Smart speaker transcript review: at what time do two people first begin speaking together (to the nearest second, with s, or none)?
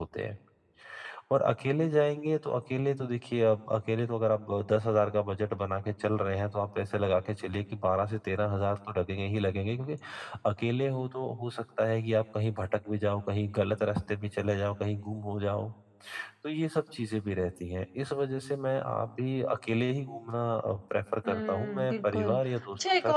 21 s